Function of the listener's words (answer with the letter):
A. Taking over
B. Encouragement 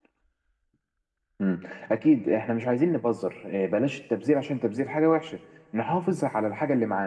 B